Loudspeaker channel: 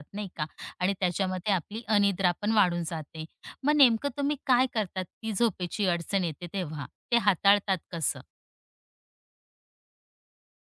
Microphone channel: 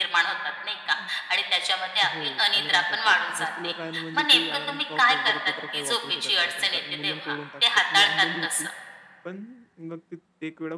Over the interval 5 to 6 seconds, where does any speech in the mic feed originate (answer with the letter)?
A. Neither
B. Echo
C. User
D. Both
D